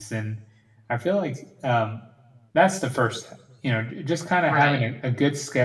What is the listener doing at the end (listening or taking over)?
listening